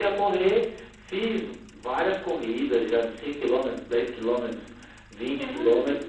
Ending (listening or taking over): listening